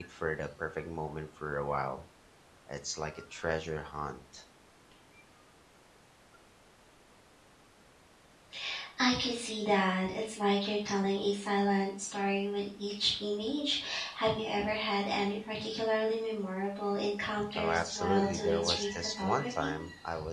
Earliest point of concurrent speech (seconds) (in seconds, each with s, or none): 17.5 s